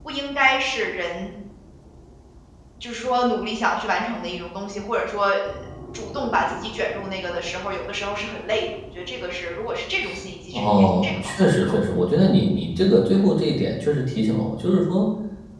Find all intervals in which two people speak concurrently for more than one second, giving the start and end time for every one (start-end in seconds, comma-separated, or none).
10.5-11.8